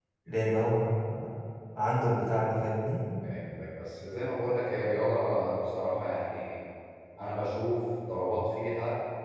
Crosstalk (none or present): none